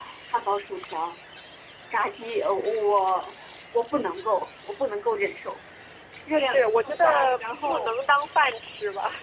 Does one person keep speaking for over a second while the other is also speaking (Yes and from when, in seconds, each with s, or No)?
Yes, from 6.3 s